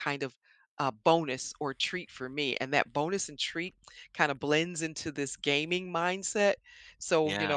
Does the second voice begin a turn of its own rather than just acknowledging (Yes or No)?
No